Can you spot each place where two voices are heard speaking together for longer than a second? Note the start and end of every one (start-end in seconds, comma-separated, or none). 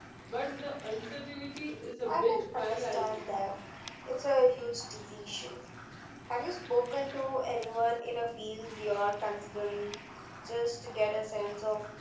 2.0-3.2